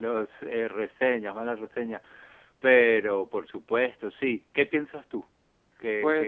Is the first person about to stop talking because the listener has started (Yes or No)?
Yes